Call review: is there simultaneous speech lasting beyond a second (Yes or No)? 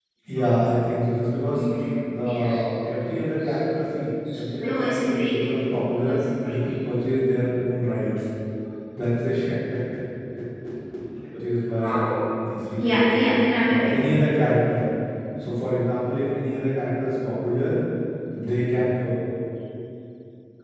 Yes